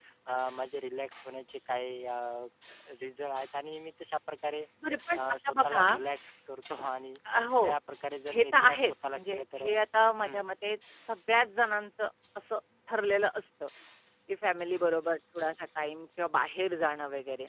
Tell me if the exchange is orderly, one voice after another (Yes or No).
No